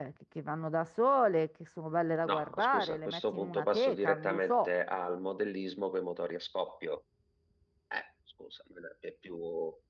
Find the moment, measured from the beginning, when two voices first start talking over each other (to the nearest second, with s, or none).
2 s